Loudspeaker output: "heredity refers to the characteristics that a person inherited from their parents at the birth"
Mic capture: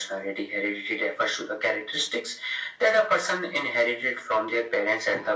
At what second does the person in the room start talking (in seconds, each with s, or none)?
none